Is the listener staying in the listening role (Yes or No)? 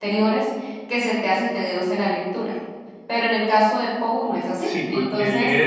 No